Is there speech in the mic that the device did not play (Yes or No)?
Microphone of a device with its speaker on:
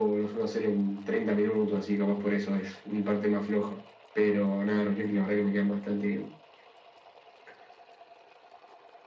No